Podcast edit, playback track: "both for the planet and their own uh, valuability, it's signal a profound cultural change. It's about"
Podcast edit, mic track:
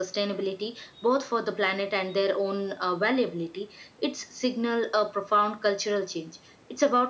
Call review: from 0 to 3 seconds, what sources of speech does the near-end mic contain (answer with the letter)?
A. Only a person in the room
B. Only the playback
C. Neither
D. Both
B